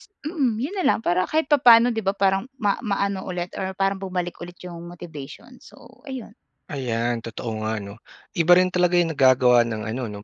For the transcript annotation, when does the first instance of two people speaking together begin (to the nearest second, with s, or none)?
none